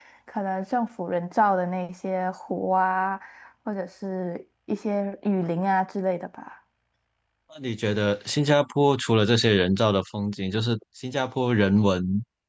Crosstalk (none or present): none